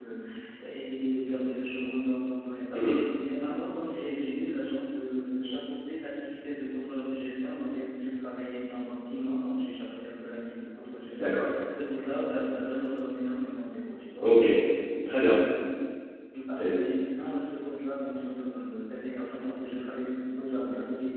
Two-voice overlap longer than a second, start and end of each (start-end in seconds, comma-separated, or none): none